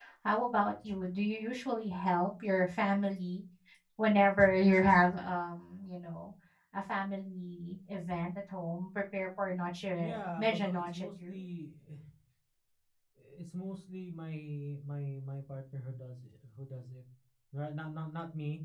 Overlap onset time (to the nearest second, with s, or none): 10 s